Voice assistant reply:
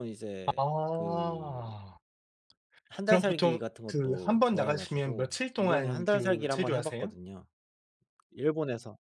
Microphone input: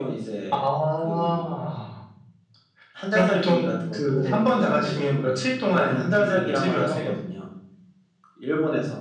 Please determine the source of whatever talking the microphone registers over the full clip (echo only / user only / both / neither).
both